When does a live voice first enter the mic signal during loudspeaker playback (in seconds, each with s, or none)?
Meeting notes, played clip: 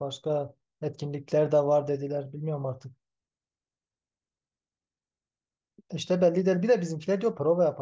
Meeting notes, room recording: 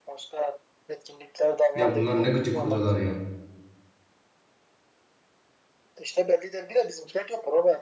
1.8 s